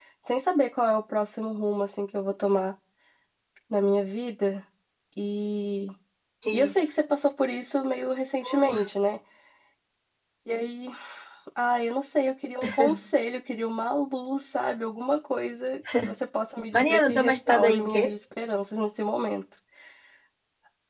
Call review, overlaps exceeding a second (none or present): present